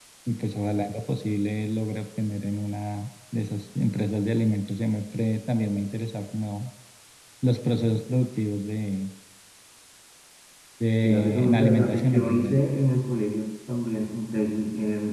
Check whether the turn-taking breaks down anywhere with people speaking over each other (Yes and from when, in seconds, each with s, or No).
Yes, from 11.0 s